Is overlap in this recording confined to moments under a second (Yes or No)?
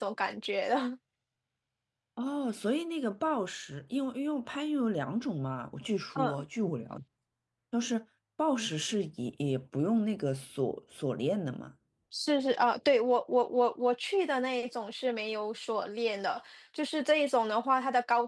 Yes